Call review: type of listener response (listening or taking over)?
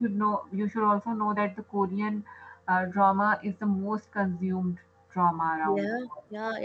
taking over